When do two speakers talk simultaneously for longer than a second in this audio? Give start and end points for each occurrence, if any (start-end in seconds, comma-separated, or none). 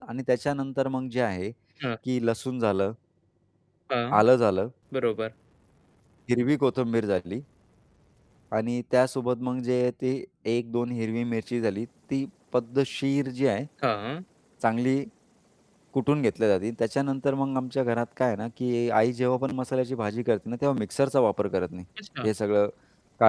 none